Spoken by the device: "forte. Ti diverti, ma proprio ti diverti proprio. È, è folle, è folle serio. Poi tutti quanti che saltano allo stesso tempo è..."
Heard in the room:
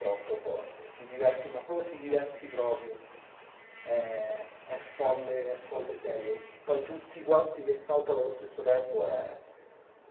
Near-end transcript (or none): none